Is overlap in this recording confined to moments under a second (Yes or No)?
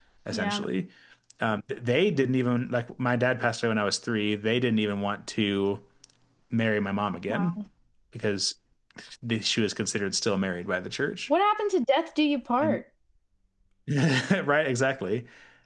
Yes